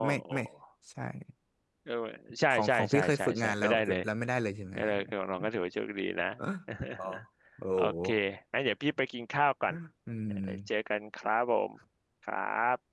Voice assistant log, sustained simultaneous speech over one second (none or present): present